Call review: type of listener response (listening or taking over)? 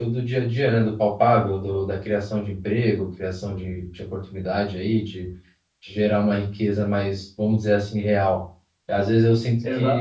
listening